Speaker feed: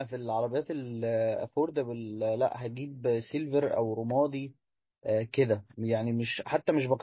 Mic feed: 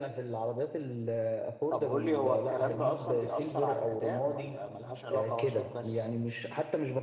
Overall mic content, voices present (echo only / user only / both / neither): both